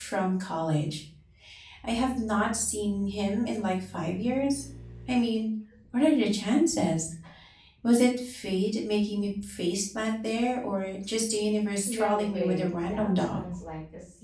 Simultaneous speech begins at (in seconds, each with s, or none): 11.9 s